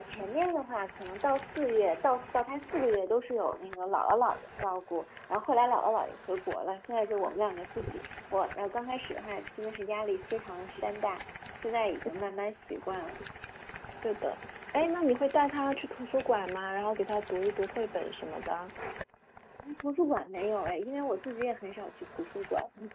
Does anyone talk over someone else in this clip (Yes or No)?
No